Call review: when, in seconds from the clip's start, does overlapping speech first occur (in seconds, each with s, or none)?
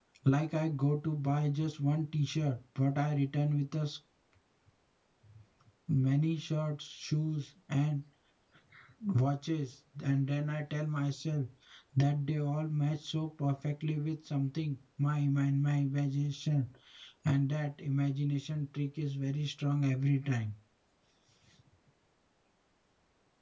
none